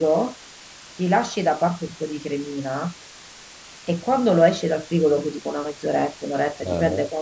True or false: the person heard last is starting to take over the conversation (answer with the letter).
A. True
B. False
B